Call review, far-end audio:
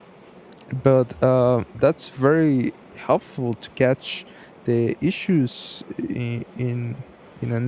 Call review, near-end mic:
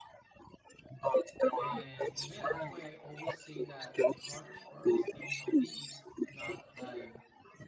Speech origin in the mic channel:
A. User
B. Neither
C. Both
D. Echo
C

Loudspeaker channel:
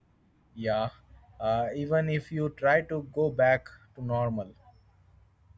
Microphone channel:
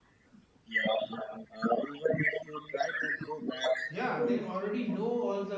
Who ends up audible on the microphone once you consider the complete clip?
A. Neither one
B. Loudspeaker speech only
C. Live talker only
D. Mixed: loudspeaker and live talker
D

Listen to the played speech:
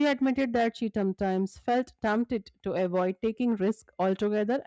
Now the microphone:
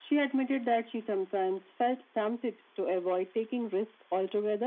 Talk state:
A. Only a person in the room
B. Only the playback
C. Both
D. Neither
B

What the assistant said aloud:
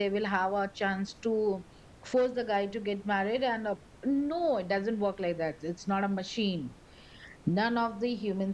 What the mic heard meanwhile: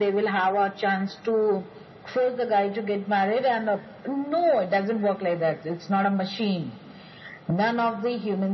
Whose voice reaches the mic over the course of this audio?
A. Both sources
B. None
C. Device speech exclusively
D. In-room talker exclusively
C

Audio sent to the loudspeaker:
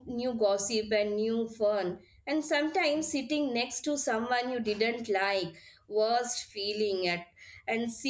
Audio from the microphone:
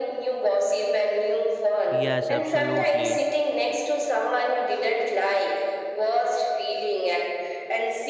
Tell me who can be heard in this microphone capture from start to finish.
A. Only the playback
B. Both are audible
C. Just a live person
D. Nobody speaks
B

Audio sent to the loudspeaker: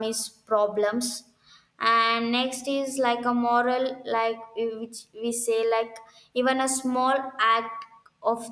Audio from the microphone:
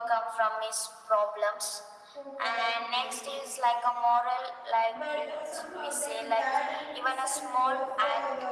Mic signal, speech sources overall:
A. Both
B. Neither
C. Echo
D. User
A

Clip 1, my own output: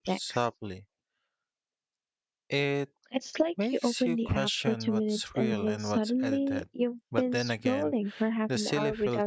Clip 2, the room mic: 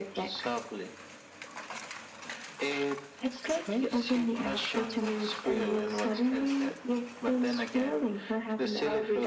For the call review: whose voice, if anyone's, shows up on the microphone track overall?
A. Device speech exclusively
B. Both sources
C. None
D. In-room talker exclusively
A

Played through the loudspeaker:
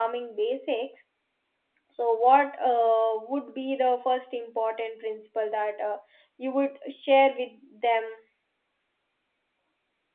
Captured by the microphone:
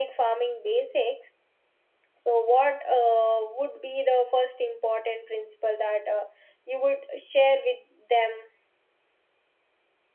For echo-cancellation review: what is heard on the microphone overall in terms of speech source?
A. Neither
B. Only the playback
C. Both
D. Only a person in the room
B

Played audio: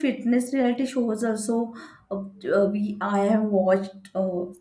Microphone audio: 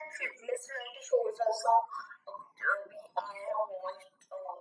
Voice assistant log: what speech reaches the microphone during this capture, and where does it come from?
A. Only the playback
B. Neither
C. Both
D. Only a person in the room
A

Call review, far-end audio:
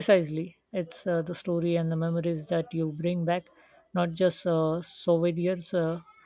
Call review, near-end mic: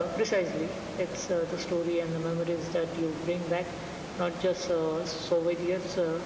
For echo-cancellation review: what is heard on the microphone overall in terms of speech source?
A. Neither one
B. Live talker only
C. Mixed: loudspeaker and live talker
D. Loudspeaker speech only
D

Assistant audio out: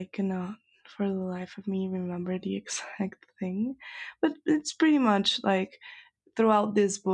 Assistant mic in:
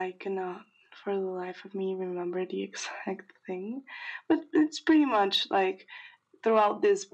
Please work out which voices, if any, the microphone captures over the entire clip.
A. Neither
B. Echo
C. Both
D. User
B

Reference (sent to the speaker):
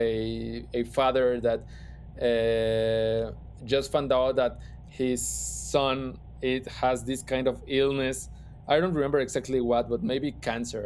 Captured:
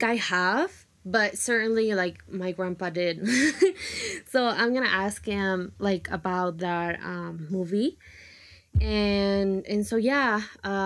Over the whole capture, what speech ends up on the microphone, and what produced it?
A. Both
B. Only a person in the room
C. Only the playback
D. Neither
B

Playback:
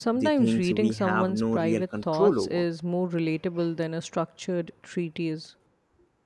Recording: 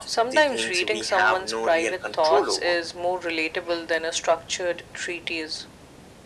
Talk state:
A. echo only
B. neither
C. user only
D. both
A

